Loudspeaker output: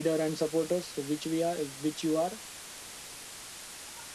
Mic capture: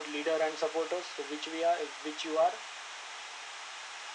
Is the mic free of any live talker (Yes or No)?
Yes